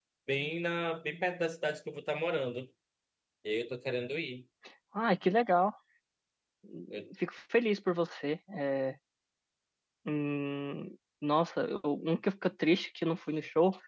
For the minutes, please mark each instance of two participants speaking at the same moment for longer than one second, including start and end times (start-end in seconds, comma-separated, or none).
none